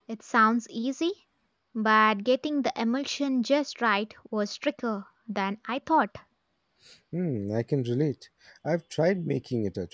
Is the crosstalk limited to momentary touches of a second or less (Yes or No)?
Yes